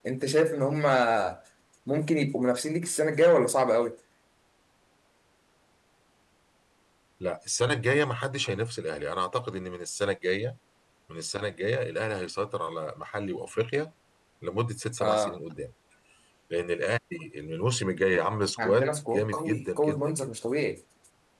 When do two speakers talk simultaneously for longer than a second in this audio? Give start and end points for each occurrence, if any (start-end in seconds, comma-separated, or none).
18.6-20.3